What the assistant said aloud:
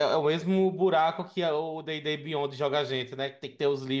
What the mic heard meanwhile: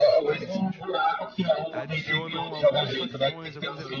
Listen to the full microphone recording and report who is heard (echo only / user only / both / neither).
both